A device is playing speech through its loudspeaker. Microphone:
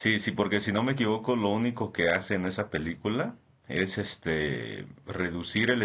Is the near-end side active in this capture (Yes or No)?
Yes